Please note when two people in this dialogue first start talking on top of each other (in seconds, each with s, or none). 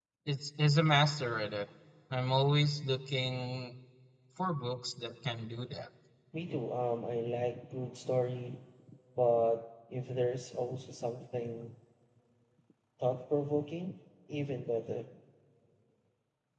none